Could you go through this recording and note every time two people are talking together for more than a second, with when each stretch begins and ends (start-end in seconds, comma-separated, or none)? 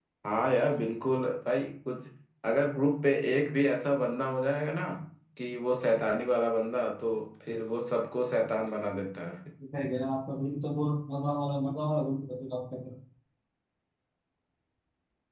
none